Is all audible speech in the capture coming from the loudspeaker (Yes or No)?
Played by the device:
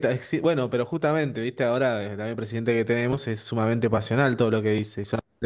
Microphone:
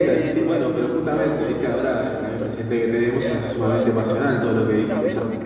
No